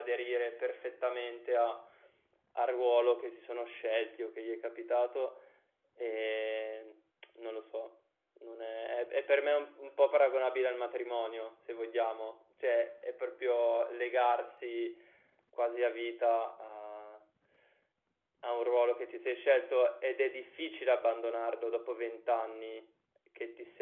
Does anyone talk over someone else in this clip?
No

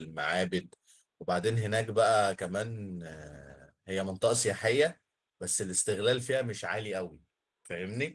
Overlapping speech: No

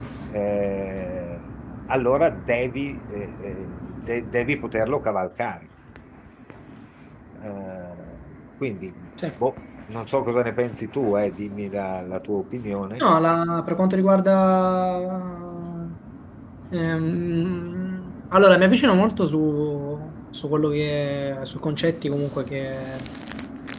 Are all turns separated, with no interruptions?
Yes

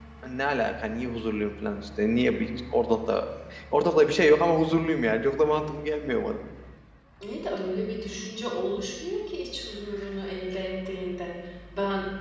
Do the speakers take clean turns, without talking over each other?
Yes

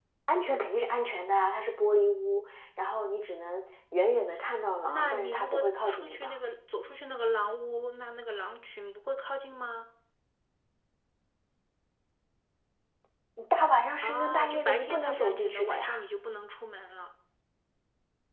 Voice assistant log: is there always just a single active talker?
No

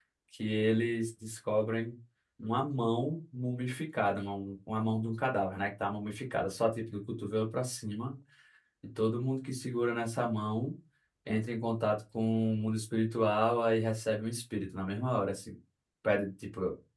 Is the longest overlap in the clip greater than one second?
No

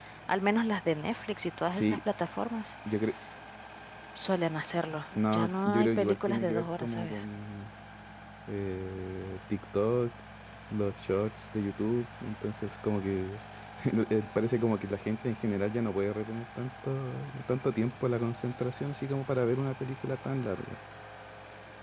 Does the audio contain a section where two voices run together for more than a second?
Yes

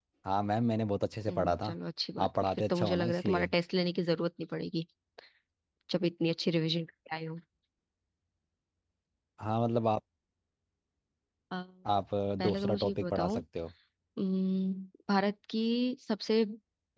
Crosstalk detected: Yes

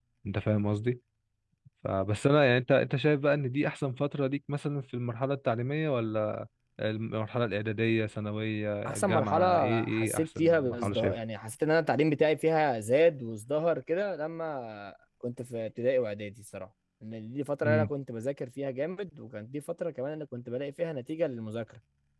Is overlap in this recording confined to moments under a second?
No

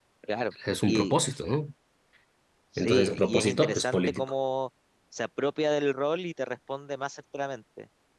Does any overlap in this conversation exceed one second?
Yes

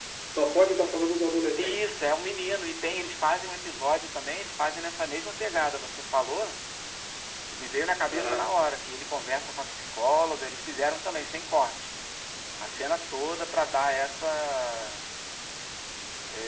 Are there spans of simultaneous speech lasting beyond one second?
No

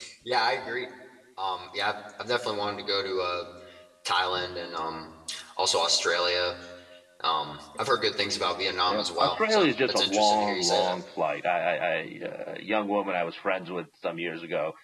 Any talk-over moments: Yes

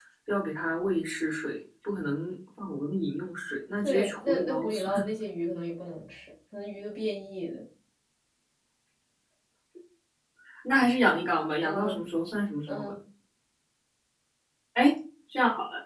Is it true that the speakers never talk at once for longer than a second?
No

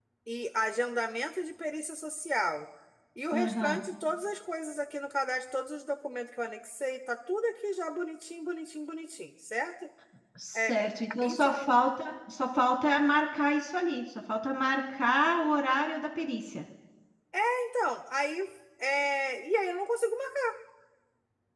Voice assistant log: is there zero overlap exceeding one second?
Yes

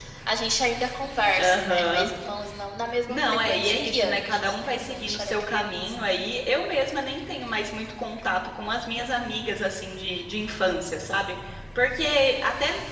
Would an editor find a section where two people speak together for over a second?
Yes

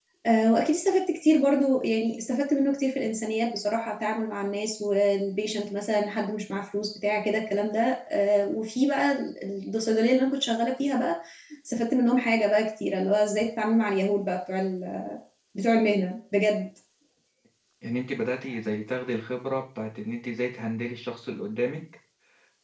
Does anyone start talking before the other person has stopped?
No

